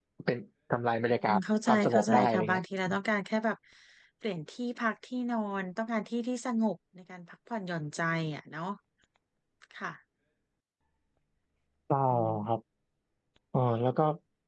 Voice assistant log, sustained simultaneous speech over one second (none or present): present